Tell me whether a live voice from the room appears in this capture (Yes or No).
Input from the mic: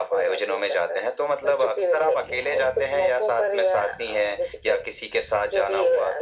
No